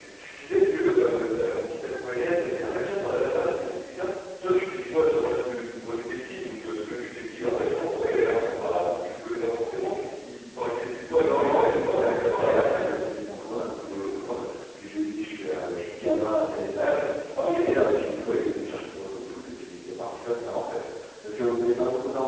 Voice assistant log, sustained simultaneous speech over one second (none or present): present